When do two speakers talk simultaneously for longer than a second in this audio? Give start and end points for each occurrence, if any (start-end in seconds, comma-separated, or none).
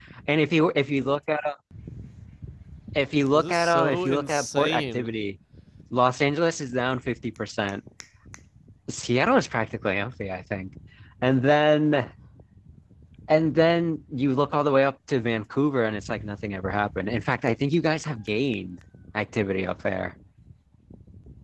3.3-5.2